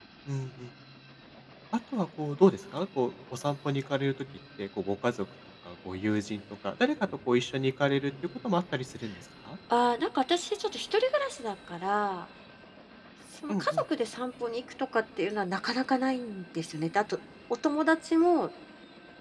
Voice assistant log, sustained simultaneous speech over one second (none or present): none